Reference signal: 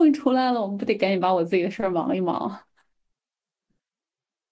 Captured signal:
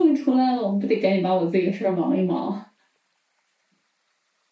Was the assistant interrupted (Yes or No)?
No